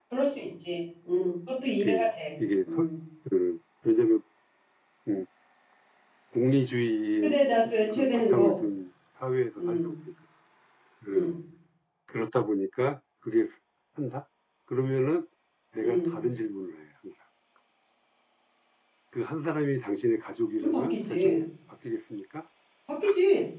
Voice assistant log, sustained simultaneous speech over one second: present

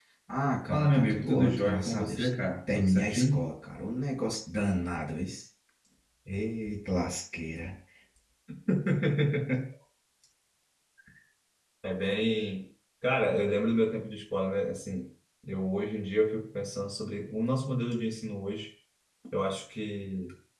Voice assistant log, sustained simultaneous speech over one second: present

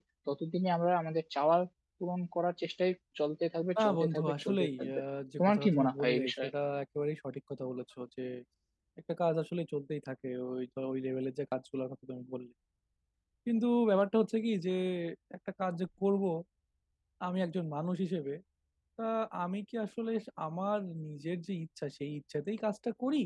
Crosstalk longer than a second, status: present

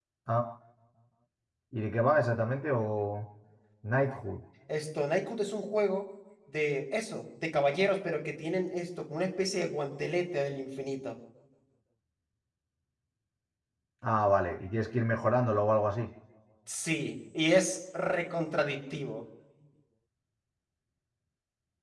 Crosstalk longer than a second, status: none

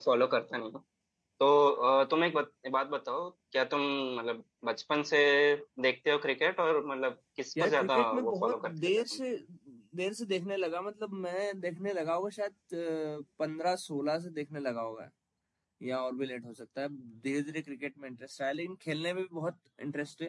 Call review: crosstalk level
present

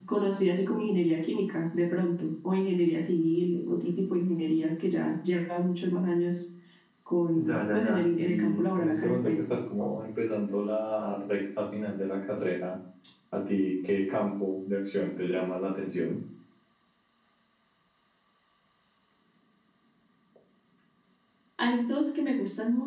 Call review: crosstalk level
present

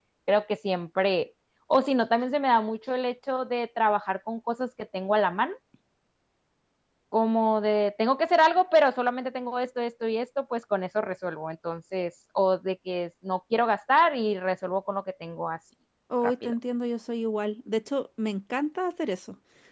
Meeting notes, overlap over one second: none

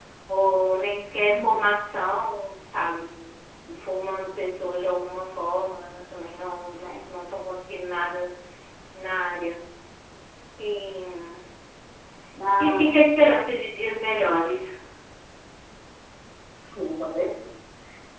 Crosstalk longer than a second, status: none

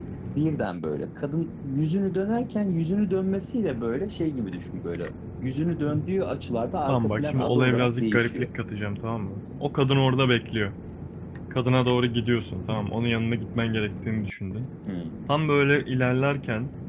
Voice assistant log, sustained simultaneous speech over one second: present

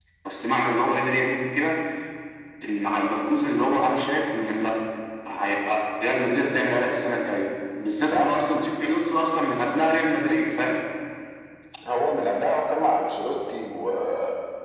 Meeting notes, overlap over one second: none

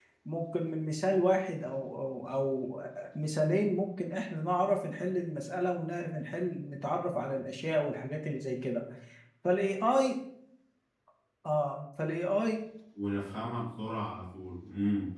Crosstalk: none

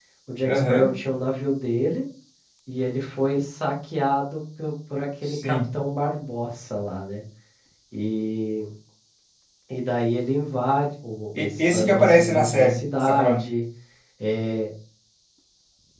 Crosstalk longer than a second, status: present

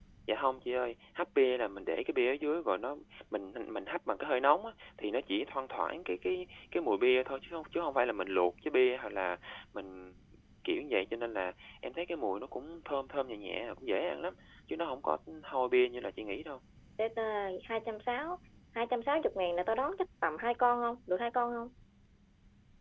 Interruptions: none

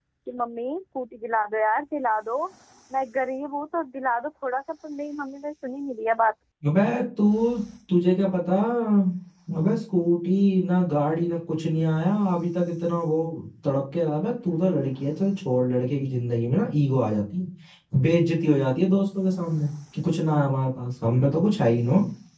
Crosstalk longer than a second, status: none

